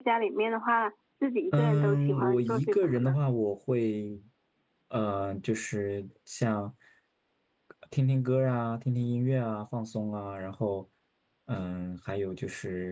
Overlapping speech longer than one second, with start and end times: 1.5-3.2

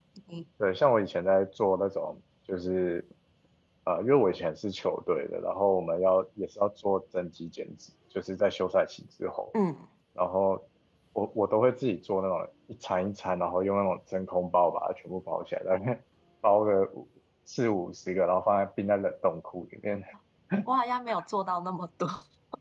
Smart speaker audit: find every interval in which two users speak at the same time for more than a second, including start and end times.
none

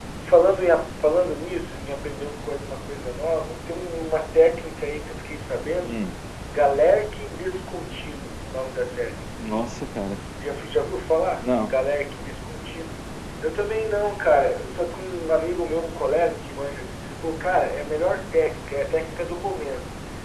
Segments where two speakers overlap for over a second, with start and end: none

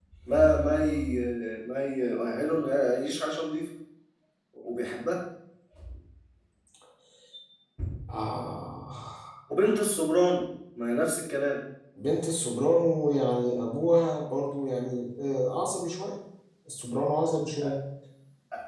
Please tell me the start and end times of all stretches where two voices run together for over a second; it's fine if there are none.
none

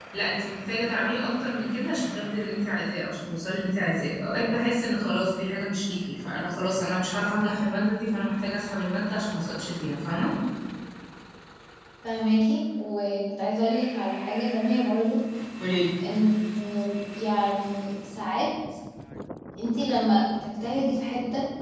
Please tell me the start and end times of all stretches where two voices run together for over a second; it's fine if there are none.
none

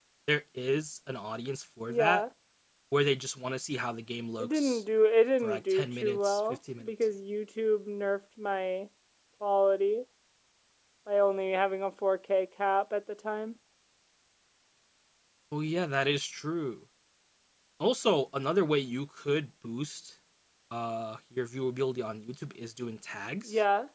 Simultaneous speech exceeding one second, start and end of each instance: 5.4-6.9

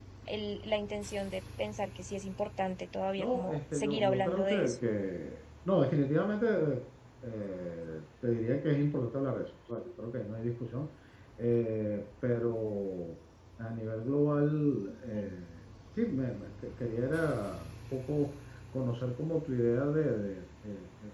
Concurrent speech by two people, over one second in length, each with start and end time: 3.2-4.7

